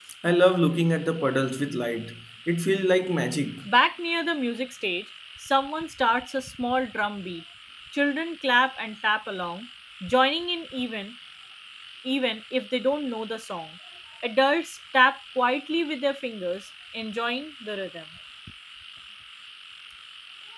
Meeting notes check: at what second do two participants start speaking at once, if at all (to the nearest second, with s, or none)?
none